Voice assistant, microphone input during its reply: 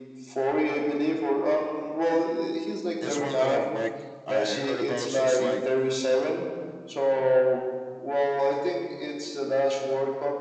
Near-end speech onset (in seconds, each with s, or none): 3.0 s